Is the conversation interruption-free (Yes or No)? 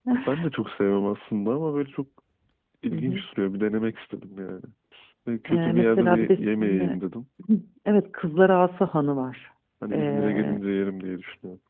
No